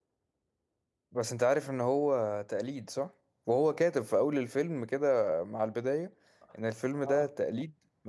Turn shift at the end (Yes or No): No